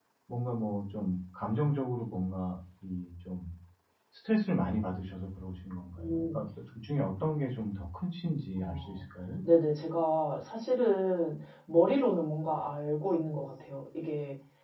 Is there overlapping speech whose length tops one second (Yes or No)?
No